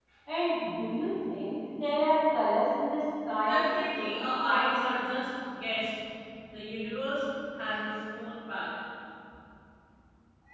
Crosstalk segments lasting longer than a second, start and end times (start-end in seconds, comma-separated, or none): 3.4-5.0